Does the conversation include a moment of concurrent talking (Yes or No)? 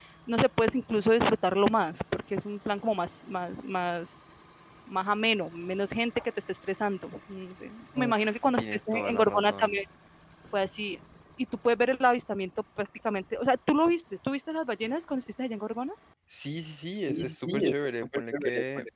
Yes